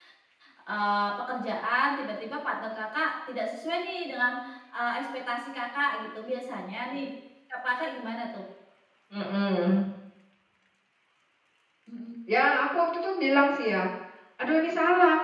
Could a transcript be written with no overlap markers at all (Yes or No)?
Yes